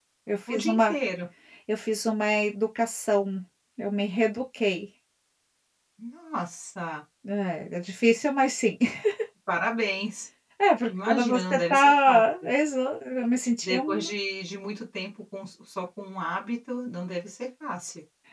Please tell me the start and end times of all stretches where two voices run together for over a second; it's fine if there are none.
10.9-12.5

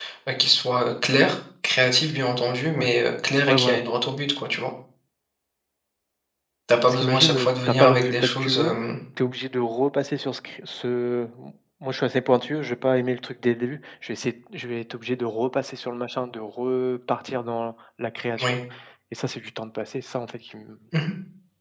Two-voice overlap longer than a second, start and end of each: 6.9-8.8

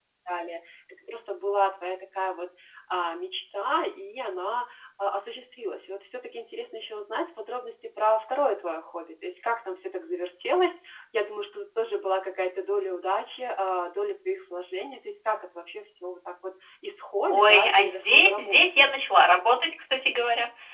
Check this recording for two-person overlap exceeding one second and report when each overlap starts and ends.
17.3-18.9

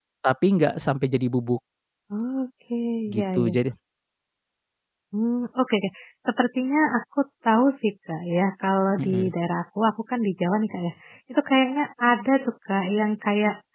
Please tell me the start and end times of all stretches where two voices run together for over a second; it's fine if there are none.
none

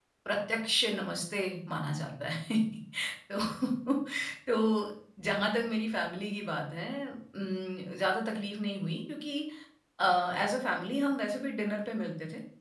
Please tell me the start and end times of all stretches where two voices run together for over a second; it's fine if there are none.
none

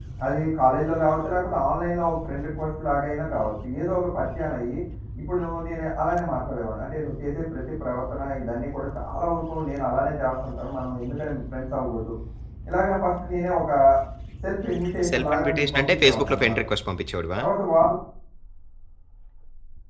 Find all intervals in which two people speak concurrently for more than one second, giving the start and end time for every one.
15.1-16.6

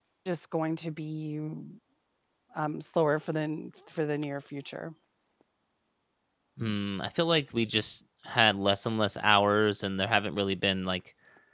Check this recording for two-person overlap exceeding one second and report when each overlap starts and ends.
none

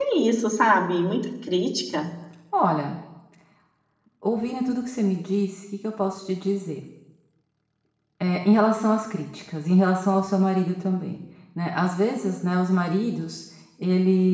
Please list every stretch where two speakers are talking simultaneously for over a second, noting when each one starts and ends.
none

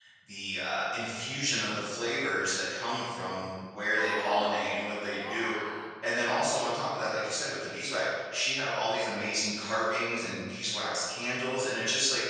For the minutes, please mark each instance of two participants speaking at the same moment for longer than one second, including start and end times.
4.0-5.5

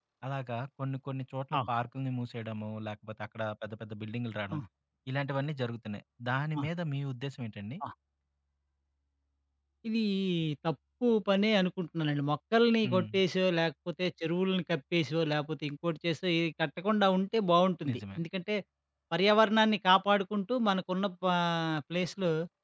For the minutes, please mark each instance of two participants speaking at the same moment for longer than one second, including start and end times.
none

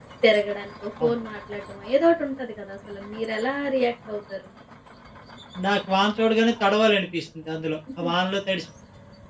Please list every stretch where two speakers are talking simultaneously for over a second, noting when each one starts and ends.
none

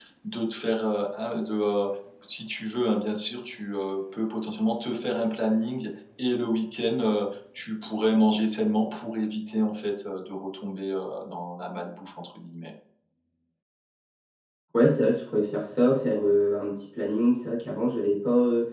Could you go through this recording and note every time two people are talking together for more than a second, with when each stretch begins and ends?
none

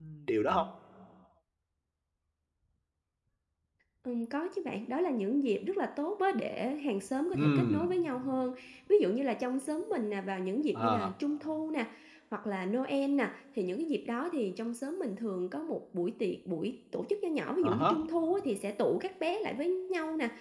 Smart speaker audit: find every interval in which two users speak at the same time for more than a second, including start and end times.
none

